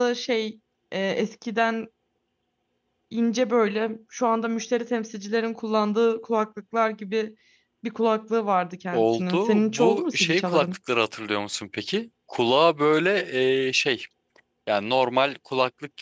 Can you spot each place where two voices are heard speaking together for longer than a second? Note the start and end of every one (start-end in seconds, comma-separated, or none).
8.9-10.7